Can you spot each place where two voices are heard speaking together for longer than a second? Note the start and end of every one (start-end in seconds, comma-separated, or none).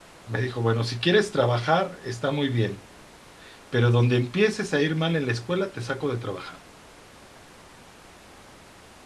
none